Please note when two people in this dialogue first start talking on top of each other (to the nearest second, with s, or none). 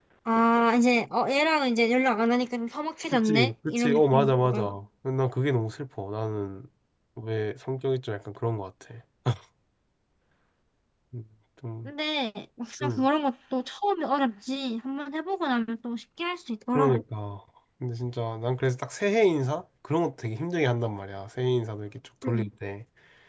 3 s